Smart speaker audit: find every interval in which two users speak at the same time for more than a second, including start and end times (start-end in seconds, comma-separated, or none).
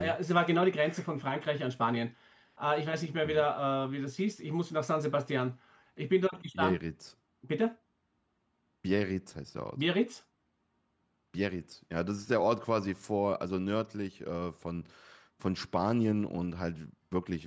none